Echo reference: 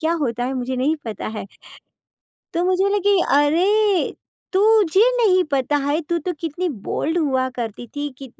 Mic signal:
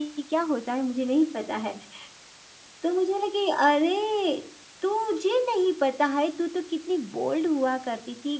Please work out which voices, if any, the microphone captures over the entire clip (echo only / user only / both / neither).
echo only